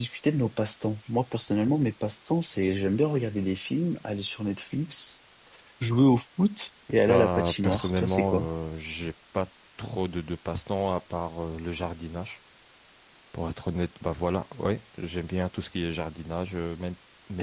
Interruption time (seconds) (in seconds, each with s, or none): 7.1 s